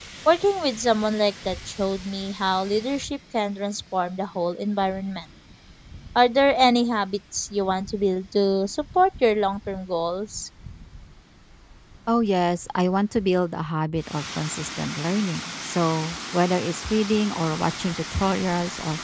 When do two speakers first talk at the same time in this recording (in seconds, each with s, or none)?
none